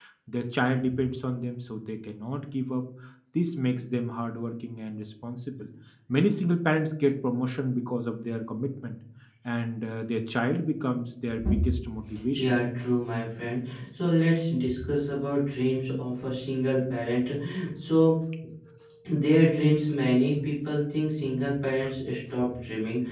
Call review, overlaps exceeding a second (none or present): none